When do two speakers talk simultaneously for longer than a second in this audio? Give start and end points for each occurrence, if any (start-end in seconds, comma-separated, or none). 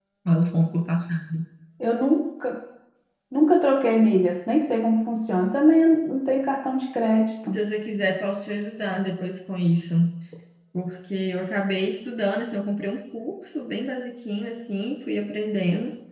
none